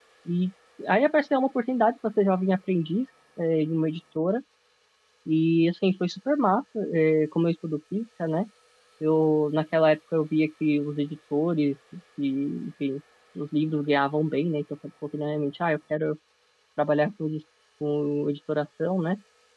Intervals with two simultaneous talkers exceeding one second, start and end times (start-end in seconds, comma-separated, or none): none